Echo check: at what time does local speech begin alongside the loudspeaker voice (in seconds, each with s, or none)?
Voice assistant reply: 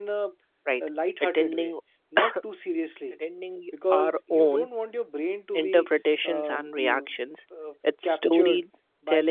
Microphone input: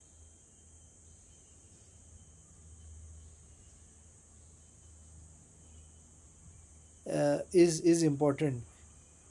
7.1 s